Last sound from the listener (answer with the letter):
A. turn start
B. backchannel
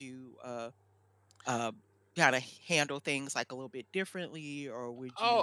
A